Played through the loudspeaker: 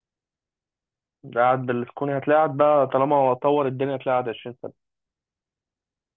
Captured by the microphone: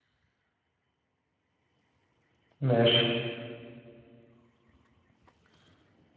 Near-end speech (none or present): present